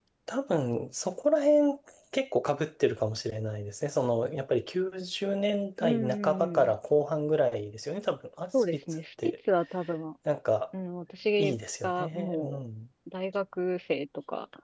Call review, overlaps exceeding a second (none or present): present